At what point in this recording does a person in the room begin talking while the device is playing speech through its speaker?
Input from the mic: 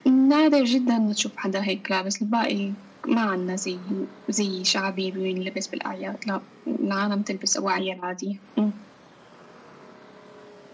none

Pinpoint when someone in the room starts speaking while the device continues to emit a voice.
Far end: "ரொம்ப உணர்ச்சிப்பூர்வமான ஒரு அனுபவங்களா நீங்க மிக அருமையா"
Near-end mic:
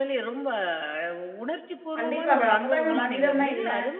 2.0 s

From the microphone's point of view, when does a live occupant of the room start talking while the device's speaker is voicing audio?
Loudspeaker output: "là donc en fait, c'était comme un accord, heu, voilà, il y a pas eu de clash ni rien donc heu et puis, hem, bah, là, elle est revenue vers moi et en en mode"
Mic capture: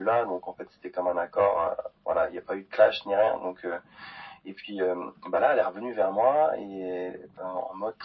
none

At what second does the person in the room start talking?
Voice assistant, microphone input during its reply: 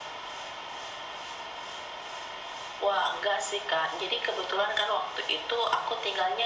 none

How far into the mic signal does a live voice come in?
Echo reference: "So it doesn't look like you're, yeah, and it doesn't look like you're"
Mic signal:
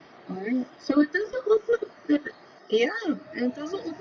none

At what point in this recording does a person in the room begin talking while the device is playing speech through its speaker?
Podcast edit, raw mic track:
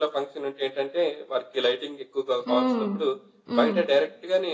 2.5 s

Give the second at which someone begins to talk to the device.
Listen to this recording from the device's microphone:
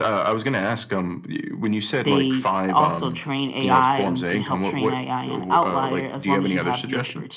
2.0 s

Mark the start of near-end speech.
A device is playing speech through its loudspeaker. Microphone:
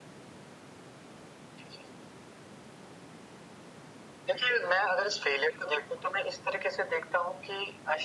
none

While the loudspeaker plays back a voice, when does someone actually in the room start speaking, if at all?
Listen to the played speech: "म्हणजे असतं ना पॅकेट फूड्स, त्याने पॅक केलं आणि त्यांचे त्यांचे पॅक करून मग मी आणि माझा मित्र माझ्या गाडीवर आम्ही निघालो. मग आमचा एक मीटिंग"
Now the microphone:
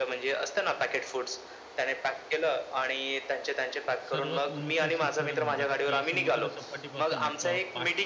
4.0 s

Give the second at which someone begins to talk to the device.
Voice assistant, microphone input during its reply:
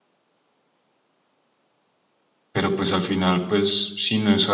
2.5 s

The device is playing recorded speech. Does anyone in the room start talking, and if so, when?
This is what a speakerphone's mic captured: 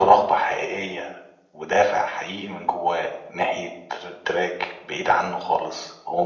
none

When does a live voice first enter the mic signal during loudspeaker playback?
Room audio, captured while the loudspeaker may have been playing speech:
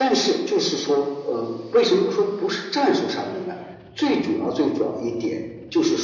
none

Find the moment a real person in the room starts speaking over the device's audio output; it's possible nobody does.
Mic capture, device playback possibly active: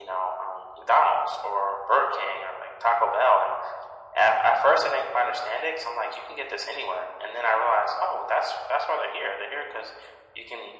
none

